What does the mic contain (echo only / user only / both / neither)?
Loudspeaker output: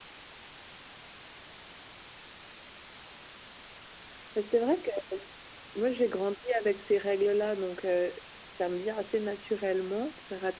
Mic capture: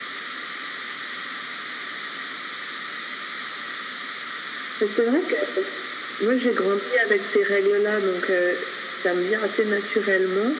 echo only